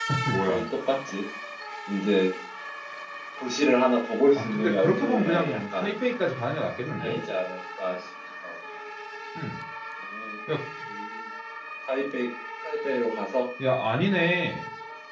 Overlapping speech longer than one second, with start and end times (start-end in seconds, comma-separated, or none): 4.4-5.9